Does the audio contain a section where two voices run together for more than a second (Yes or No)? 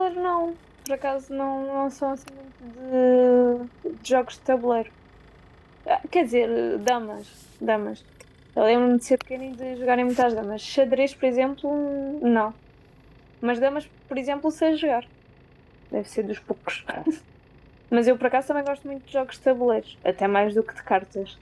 No